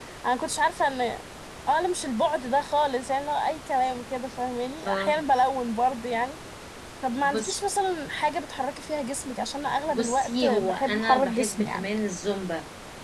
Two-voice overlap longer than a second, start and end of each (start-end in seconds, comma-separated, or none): 9.9-11.7